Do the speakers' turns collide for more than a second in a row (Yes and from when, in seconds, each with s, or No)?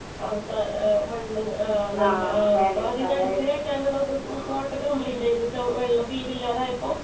Yes, from 2.0 s